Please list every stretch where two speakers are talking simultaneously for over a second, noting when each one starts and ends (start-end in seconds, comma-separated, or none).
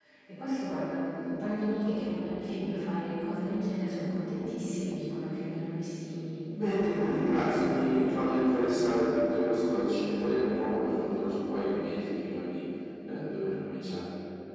6.6-8.2